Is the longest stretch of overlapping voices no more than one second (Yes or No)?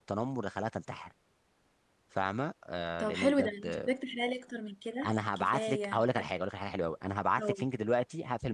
No